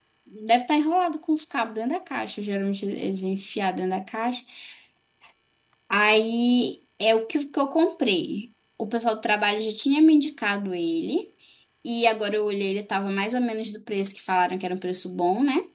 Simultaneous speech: No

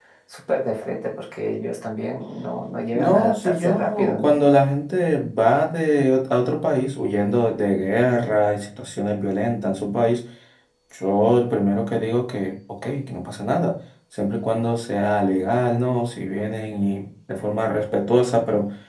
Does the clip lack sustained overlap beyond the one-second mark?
No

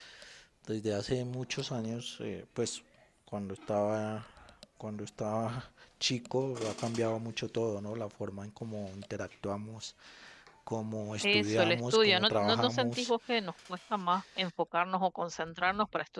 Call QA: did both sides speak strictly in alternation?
No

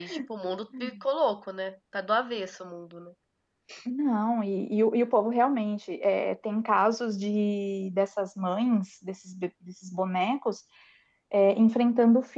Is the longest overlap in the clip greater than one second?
No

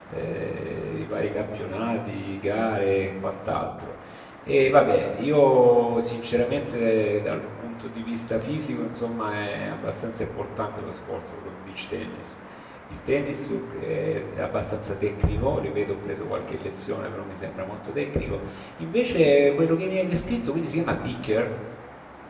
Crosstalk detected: No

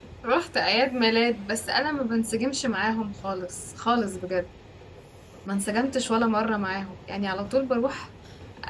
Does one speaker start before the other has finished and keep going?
No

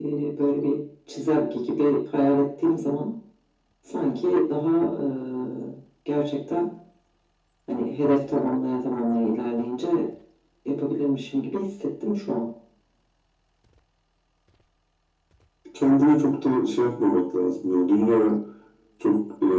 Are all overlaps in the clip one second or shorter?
Yes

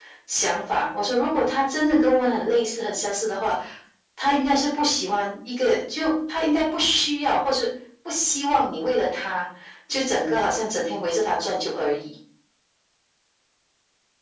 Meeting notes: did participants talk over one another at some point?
No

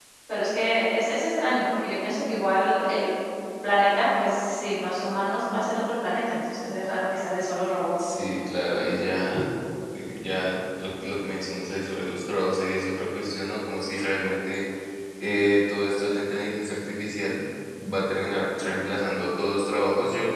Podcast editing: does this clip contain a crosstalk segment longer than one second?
No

